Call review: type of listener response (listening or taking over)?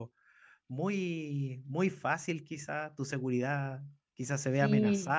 listening